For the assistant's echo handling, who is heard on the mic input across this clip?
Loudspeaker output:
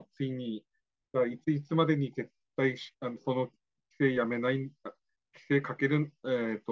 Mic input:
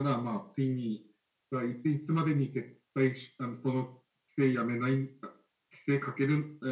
echo only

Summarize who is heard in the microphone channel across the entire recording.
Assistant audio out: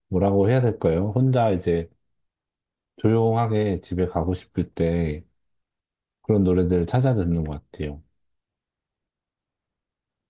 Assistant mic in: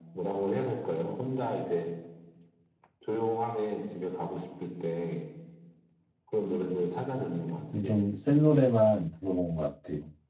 both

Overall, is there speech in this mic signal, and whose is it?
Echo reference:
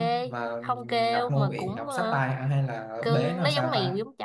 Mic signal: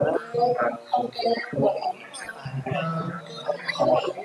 both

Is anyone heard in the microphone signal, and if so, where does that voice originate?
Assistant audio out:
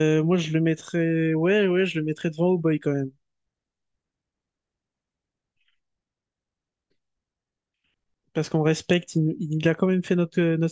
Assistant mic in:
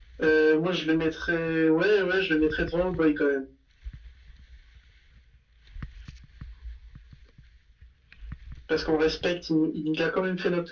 echo only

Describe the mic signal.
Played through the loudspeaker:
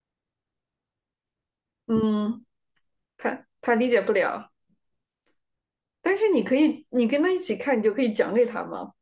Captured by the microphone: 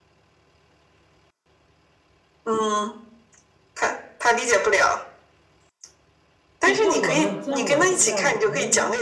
both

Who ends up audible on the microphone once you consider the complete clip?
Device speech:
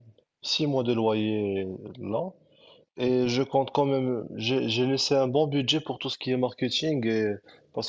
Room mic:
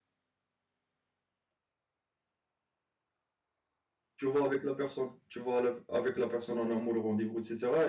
user only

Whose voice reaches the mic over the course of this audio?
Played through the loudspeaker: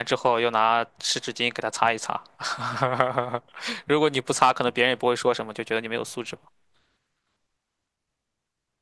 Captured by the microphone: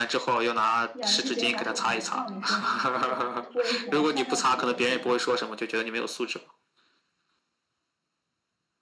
both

